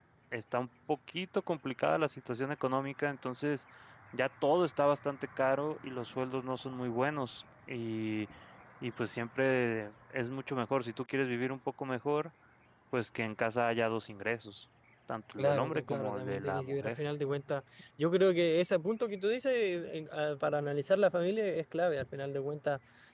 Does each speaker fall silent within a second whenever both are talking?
No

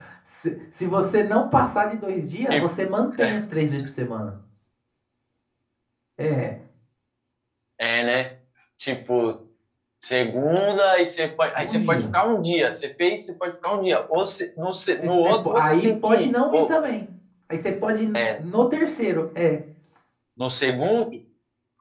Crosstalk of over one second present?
Yes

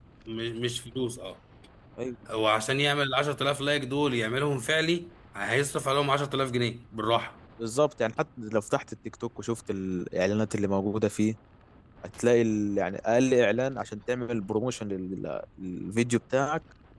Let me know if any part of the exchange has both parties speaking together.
No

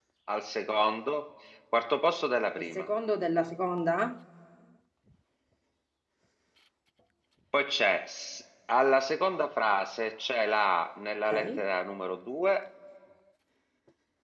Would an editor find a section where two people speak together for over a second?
No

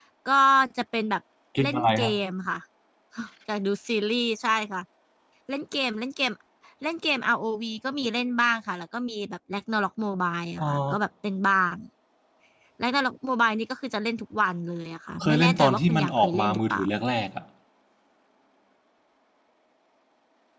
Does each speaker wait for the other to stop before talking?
No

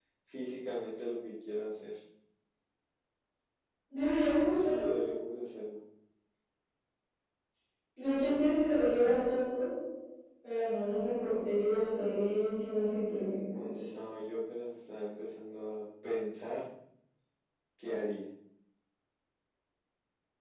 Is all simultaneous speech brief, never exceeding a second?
Yes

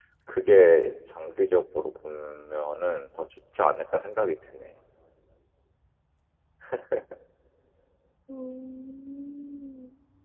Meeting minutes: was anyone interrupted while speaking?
No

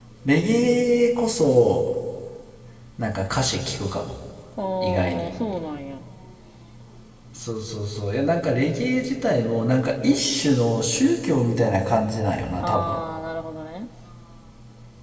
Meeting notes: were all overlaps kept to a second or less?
Yes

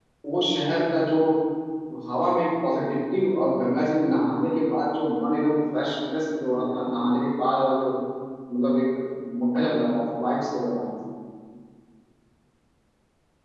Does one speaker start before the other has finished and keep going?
No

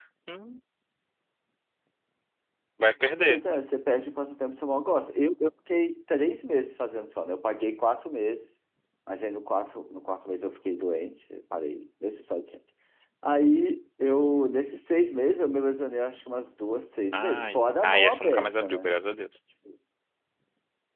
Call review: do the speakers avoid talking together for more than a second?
No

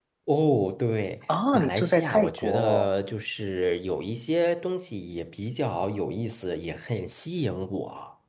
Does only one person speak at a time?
No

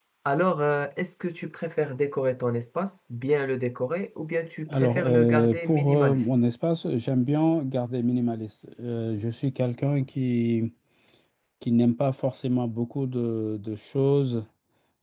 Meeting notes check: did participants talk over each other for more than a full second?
Yes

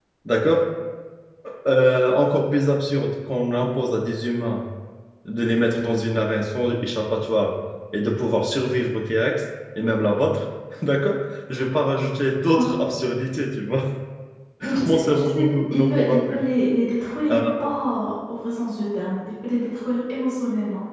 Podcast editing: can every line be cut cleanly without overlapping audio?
No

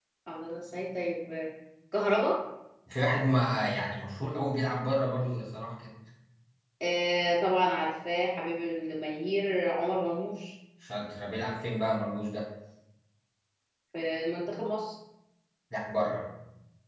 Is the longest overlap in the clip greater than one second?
No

